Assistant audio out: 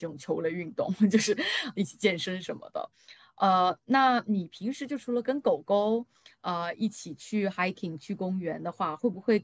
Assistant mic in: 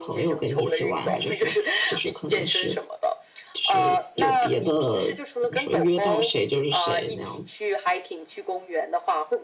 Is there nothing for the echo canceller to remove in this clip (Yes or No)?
No